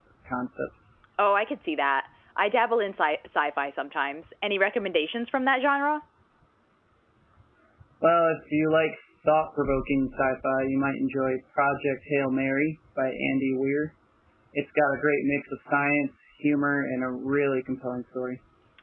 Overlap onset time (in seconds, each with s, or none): none